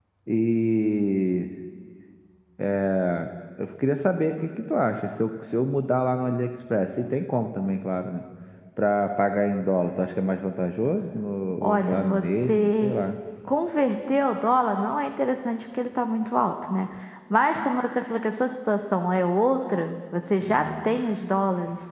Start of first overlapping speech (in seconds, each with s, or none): 11.6 s